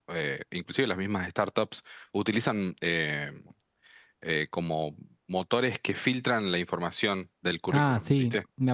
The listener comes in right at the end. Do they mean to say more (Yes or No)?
Yes